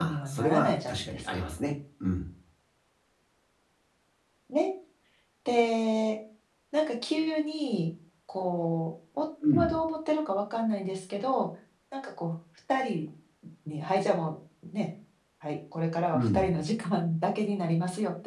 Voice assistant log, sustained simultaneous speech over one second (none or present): present